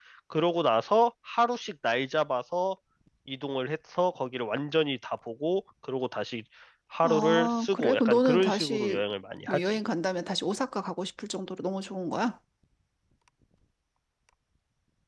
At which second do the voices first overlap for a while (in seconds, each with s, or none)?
7.0 s